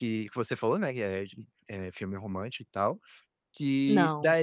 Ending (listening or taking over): listening